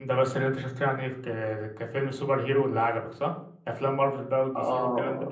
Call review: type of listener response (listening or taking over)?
taking over